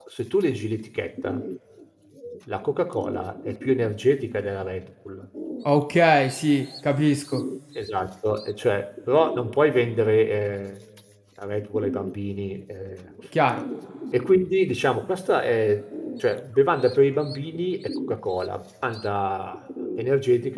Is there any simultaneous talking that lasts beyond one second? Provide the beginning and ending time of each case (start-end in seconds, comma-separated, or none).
none